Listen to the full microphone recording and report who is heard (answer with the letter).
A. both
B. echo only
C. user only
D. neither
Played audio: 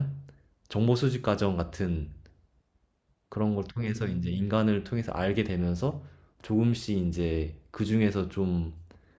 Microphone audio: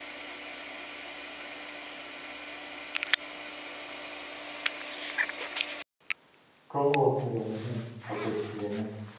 C